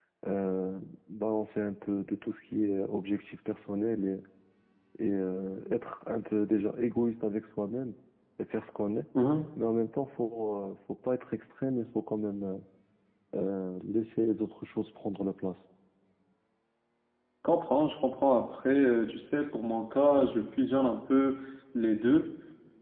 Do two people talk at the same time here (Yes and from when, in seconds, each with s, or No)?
No